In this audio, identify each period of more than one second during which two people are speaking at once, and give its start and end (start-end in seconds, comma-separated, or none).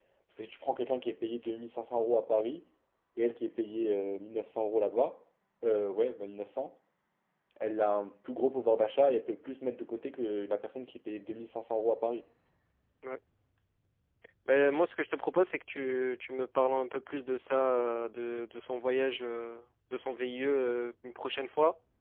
none